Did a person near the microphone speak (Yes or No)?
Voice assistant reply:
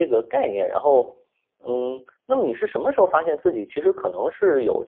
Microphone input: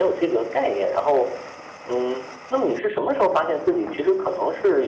No